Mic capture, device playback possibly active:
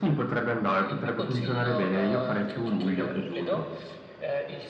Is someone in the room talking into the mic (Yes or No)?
Yes